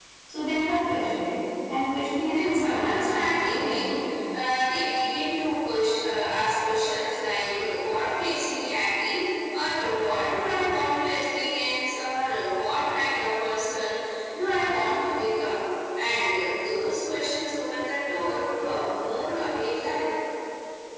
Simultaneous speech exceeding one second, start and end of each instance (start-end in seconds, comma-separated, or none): 2.3-3.9